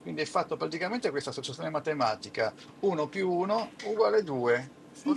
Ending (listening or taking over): taking over